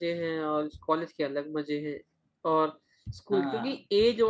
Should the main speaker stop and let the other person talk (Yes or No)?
No